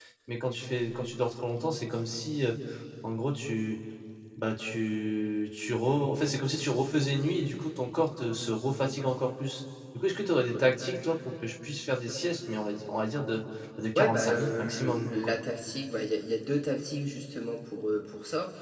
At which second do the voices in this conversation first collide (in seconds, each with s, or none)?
13.9 s